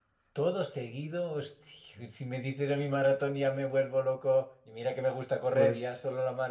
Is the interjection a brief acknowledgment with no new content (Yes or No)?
Yes